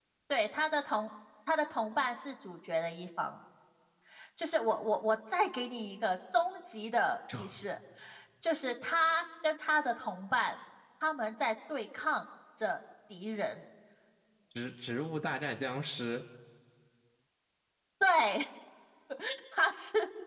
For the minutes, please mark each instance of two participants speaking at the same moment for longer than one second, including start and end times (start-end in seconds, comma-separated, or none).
none